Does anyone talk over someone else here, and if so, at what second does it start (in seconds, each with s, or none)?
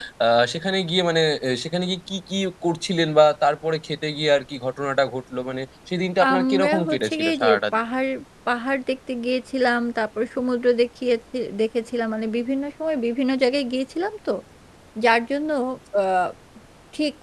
6.2 s